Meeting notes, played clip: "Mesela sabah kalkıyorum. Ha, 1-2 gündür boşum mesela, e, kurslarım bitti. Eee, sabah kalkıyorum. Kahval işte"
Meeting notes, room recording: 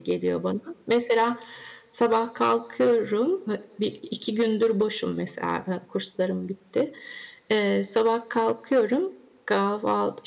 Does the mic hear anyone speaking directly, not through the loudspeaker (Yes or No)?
No